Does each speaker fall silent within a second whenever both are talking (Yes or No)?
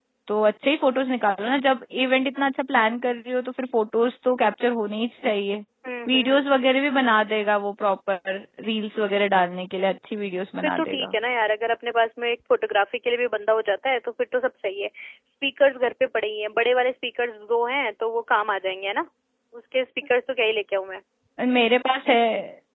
Yes